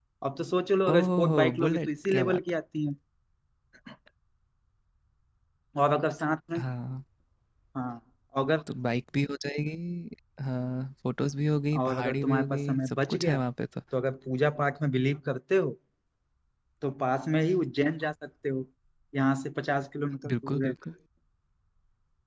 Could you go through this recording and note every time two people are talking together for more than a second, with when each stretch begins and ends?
0.9-2.4, 11.8-13.4

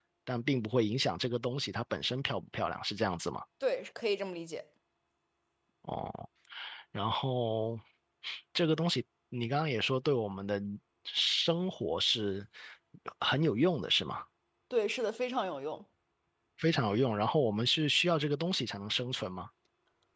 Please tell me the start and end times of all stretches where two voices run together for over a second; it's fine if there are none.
none

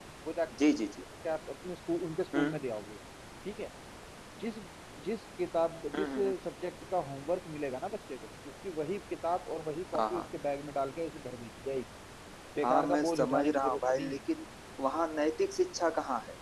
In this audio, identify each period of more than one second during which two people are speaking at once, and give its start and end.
12.6-14.2

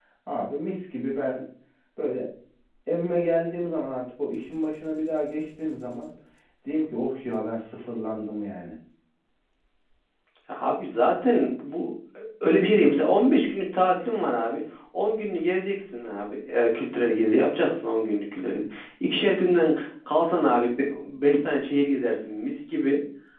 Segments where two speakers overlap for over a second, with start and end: none

